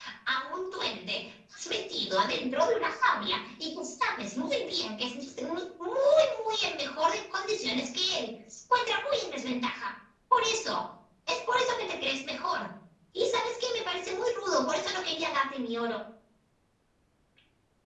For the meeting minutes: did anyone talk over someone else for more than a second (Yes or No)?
No